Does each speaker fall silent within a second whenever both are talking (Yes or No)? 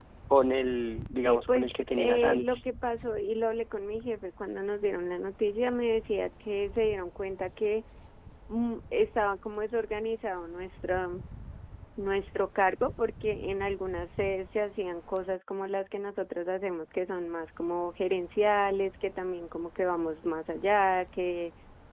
No